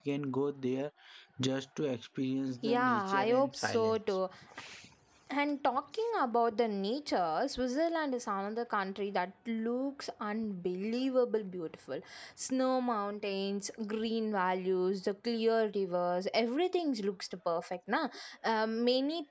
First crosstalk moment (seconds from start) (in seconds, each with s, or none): 2.6 s